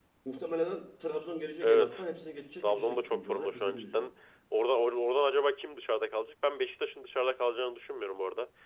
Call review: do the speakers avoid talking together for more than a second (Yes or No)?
No